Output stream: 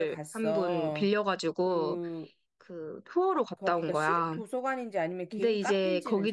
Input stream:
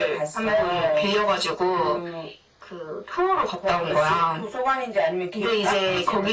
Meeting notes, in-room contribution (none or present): none